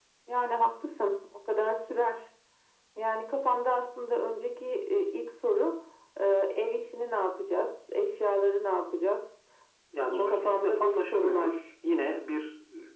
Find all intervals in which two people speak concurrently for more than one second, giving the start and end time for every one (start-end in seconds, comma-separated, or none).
10.0-11.6